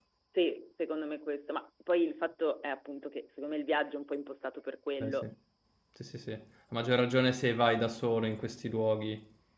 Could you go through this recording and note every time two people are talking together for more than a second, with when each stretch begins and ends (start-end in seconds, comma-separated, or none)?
none